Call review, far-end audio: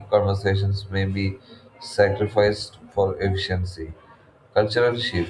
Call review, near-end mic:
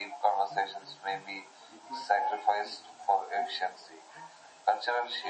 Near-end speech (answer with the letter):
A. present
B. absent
A